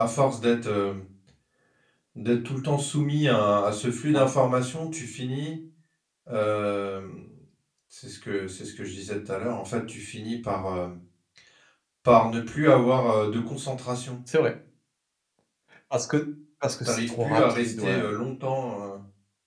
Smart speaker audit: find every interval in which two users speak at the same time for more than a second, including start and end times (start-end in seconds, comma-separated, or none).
16.8-18.1